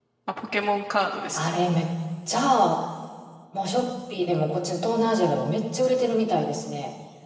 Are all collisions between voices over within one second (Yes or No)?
Yes